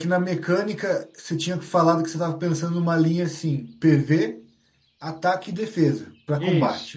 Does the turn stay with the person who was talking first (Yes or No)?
No